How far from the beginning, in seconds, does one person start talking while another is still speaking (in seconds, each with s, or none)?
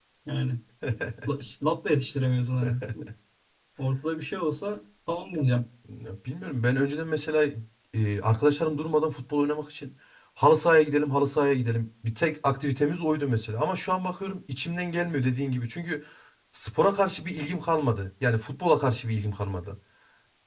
none